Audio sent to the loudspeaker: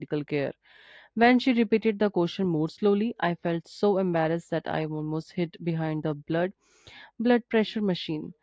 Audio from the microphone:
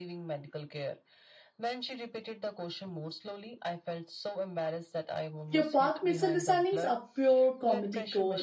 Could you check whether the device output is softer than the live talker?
Yes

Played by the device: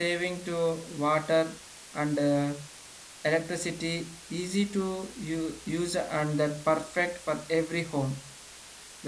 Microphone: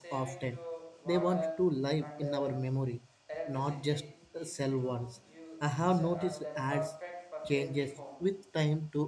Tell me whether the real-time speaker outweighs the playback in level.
Yes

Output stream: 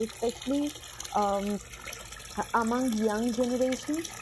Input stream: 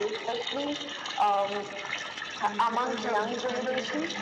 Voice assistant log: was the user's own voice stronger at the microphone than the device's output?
No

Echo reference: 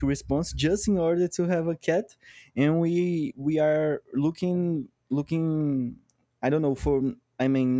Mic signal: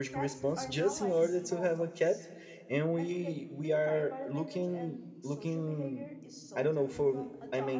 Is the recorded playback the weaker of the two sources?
No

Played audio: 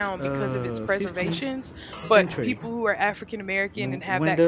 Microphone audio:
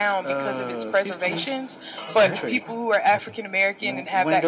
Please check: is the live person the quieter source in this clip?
Yes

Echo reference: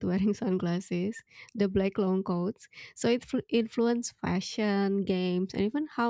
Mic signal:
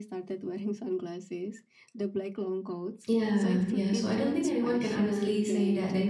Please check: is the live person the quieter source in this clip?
No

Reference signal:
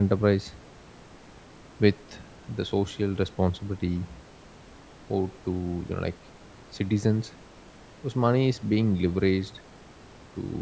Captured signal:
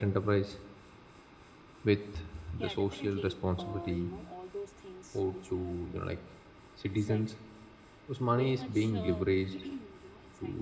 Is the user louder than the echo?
No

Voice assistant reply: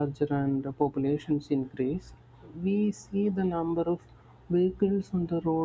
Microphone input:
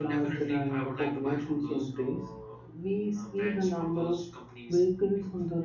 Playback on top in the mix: Yes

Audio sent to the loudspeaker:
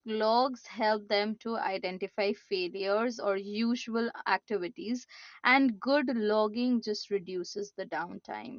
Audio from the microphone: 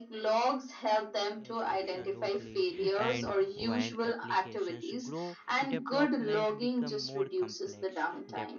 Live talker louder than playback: No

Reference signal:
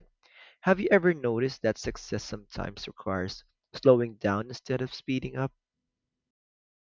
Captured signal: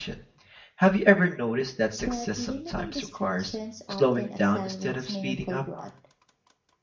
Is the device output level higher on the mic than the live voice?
Yes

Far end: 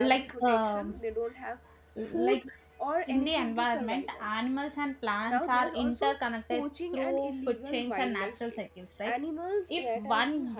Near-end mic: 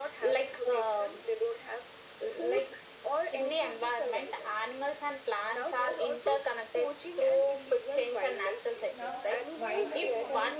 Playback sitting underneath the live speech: No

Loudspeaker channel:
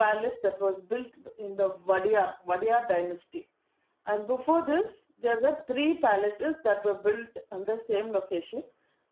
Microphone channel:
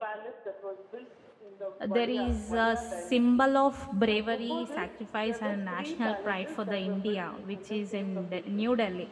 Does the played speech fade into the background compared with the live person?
Yes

